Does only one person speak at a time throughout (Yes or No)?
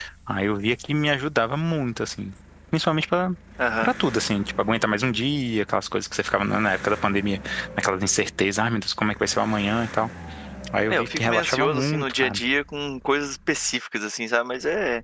No